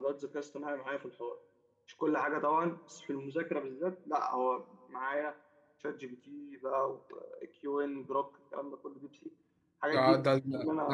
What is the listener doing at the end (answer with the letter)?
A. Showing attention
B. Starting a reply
B